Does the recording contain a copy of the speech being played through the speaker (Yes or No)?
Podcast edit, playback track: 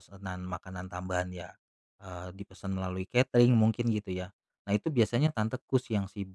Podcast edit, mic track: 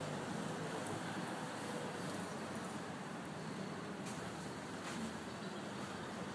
No